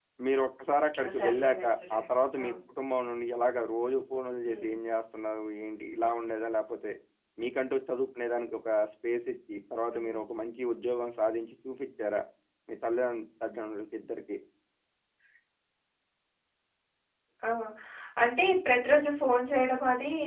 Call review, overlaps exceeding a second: present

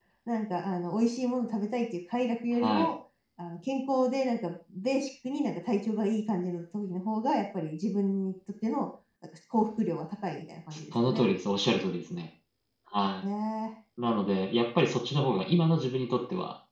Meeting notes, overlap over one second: none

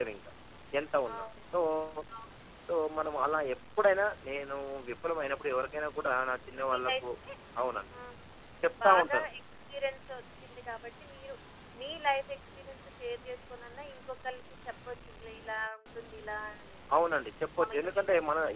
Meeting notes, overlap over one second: none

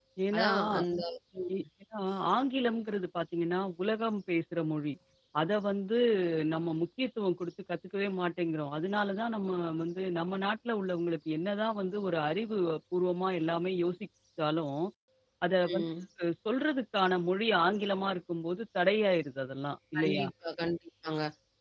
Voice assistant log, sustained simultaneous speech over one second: none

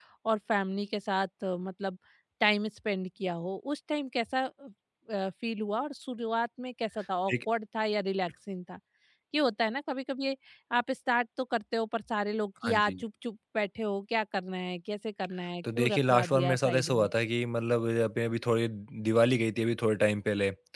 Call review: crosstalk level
present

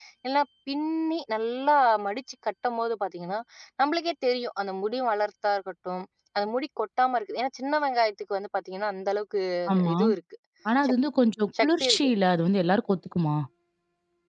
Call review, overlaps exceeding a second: none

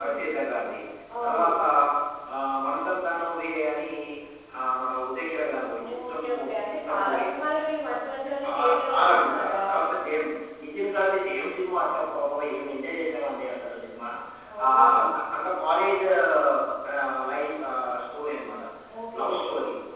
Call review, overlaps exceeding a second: present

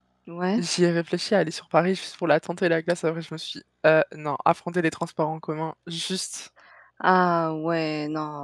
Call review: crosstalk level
none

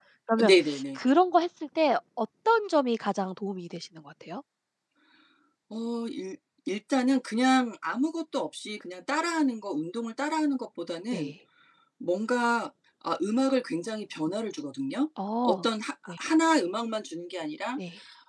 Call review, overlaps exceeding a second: none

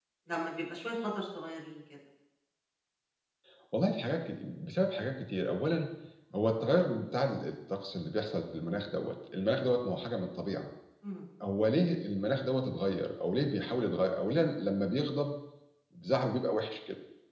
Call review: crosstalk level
none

